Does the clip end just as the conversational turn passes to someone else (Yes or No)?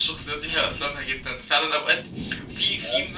No